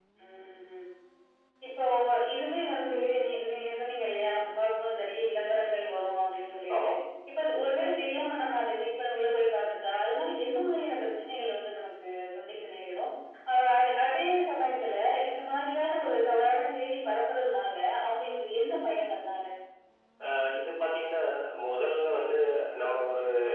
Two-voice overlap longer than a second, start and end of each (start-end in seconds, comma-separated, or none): none